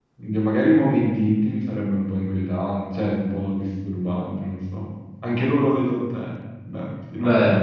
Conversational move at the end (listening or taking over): taking over